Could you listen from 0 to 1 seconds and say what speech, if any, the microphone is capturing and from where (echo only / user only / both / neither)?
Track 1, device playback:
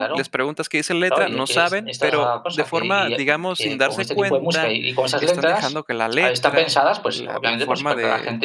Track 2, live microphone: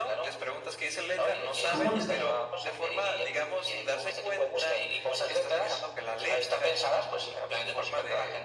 echo only